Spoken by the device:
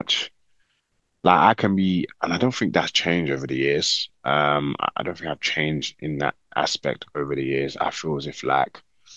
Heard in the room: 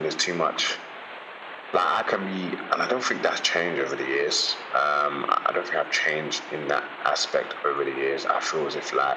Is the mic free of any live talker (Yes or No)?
Yes